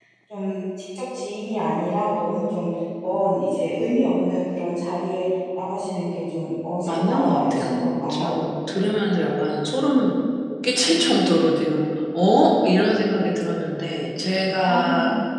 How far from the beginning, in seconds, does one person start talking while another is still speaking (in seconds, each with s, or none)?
6.9 s